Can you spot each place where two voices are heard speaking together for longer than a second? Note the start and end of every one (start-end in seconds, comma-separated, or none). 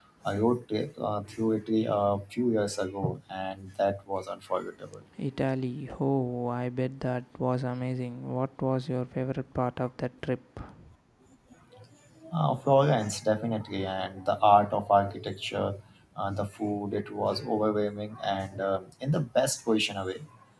none